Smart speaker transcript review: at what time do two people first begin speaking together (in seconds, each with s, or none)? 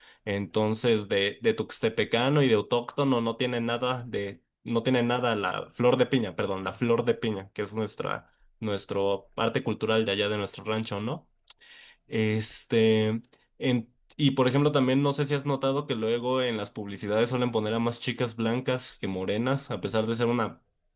none